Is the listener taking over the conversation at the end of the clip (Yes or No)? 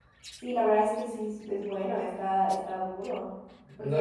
Yes